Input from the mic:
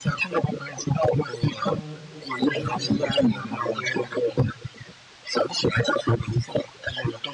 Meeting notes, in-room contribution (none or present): present